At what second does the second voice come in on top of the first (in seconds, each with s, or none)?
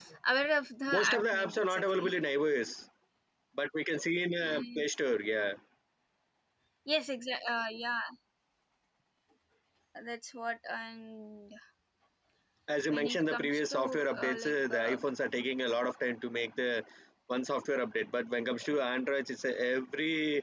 0.9 s